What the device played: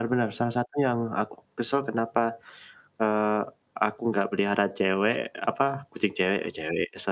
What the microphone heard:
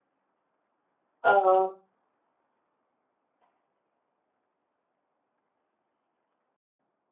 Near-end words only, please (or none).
oh.